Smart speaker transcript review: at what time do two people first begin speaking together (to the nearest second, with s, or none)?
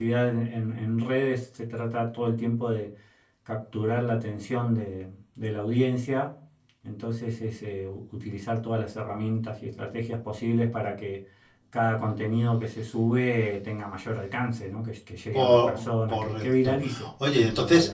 15 s